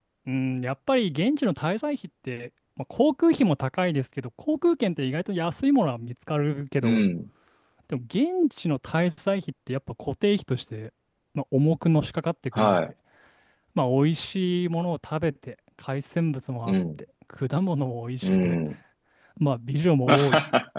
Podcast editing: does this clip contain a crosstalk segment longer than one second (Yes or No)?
No